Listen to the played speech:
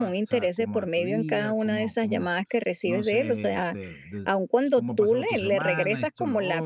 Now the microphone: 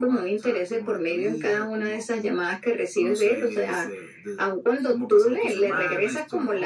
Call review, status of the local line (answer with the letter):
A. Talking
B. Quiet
B